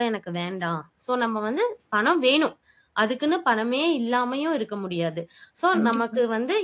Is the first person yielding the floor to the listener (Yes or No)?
No